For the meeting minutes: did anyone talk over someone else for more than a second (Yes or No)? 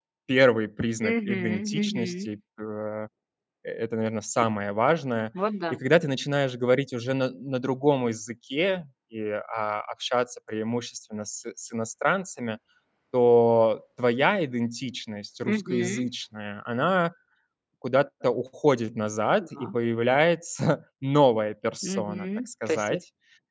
Yes